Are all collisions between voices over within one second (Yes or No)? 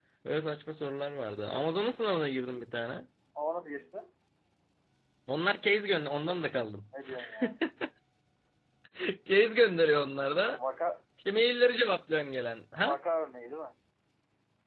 Yes